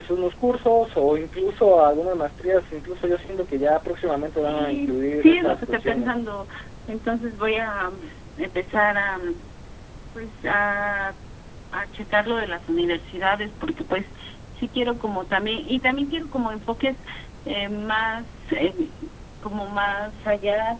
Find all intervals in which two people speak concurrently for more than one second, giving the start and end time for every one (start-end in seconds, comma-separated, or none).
4.4-6.2